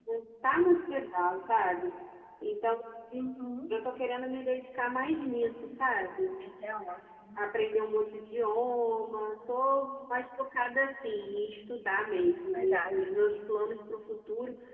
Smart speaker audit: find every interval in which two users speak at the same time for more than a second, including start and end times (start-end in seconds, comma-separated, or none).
none